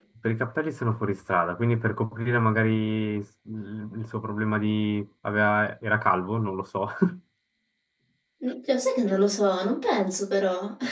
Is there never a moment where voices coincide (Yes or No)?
Yes